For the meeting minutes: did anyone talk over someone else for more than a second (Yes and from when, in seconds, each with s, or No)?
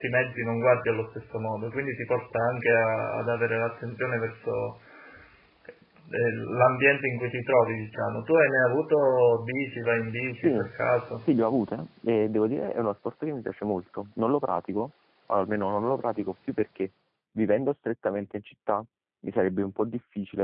No